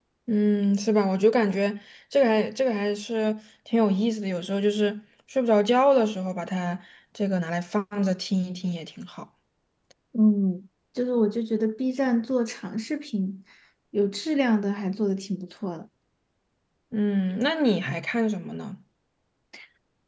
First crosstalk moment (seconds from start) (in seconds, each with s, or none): none